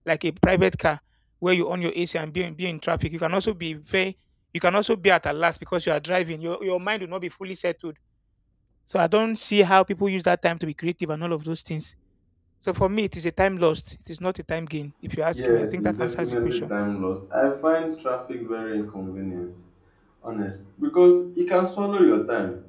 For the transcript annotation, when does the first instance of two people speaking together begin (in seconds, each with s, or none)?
15.3 s